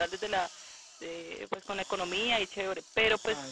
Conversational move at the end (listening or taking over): listening